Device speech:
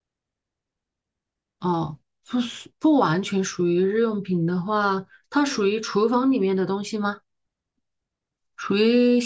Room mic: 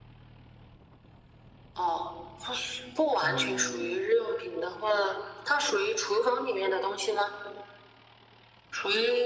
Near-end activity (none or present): present